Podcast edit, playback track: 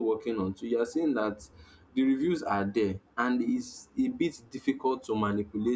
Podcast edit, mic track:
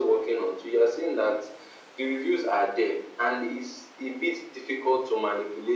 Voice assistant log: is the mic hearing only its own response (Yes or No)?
Yes